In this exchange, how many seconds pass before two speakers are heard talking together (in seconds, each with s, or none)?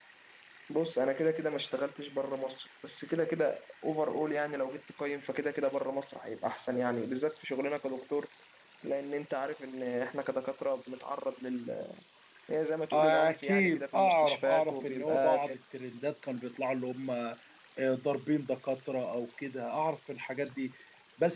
12.9 s